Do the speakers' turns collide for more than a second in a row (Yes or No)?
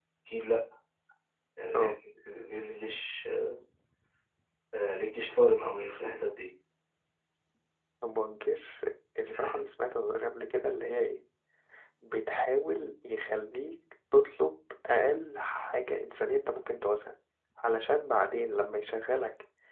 No